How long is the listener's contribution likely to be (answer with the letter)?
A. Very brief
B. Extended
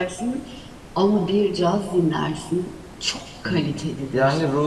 B